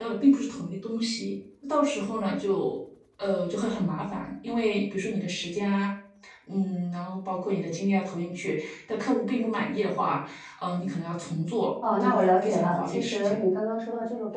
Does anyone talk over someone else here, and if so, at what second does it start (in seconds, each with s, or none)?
11.8 s